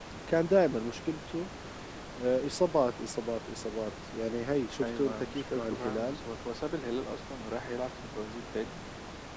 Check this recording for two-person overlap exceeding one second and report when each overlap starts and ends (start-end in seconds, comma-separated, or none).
4.8-6.2